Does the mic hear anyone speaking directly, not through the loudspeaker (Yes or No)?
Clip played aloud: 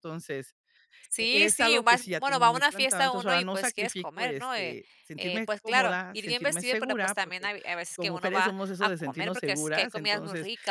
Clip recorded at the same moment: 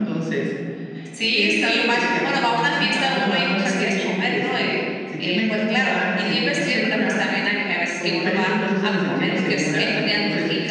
No